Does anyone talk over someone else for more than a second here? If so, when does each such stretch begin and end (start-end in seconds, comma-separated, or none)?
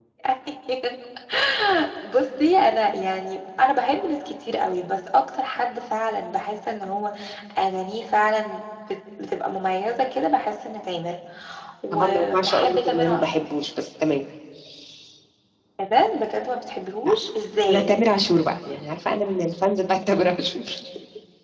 11.9-13.4